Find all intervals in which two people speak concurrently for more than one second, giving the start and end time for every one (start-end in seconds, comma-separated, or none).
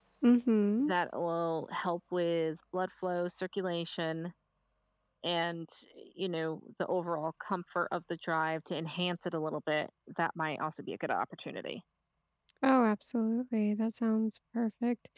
none